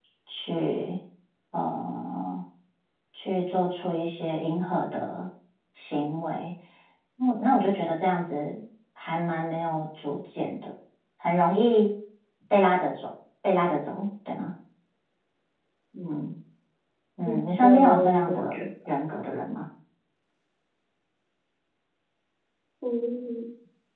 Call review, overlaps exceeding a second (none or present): present